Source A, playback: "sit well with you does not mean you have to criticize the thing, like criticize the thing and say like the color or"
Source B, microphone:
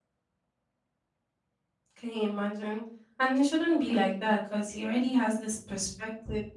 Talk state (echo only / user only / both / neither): user only